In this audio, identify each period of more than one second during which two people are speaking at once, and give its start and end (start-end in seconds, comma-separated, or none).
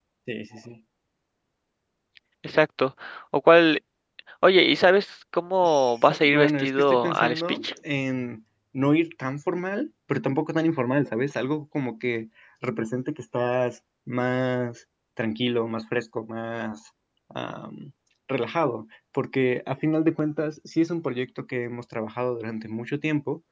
6.2-7.7